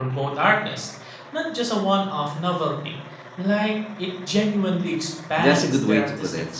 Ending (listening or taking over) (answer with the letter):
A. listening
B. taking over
B